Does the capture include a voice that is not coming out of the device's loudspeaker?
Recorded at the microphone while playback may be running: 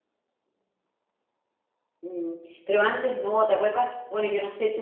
Yes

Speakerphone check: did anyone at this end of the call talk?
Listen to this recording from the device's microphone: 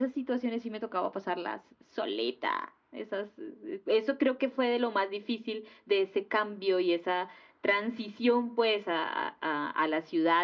No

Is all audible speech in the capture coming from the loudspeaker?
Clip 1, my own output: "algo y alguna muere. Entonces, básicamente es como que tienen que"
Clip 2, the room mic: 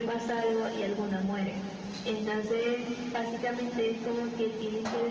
Yes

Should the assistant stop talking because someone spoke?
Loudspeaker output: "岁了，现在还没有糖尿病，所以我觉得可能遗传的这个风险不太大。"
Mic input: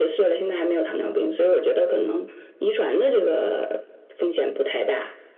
No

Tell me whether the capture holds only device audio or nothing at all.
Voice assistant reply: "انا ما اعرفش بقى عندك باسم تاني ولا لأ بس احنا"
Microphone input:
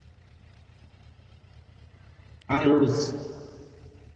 No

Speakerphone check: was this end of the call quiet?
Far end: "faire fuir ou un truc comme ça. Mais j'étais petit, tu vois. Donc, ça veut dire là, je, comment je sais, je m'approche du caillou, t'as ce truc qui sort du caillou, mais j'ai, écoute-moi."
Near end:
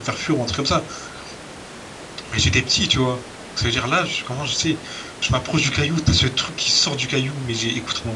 Yes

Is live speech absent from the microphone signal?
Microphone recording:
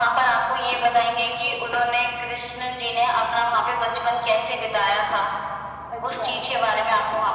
No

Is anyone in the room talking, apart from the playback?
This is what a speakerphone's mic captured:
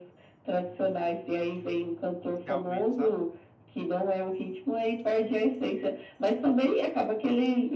Yes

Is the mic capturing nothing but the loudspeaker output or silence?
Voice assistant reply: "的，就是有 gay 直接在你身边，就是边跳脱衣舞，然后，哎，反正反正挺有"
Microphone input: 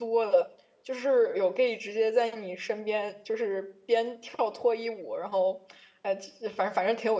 Yes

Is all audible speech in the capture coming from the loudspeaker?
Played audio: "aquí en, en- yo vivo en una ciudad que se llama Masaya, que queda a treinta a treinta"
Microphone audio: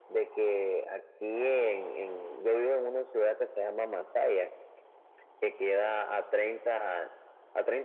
Yes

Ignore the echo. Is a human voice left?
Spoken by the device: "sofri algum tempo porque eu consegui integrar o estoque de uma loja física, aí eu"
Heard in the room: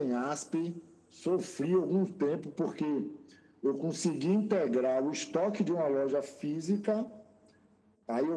No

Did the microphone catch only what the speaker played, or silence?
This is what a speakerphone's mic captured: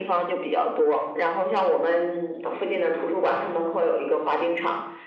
Yes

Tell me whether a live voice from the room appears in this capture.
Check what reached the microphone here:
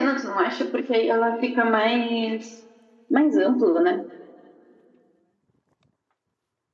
No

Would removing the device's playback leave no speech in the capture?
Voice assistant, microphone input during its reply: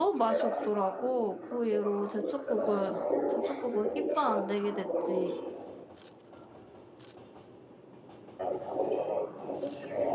No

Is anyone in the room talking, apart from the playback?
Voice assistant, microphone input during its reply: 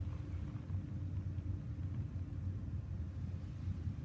No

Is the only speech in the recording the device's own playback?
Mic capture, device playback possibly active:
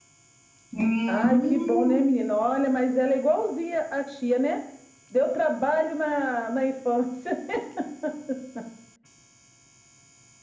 No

